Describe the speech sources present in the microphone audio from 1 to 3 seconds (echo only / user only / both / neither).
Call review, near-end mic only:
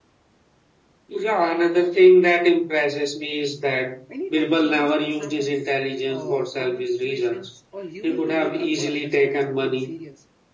echo only